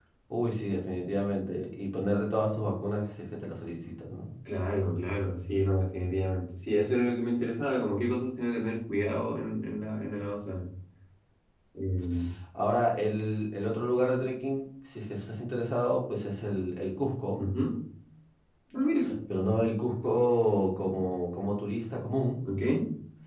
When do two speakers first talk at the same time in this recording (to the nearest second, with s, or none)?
none